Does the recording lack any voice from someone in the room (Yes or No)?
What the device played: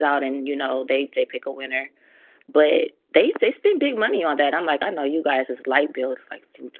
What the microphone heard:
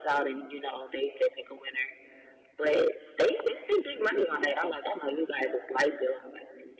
Yes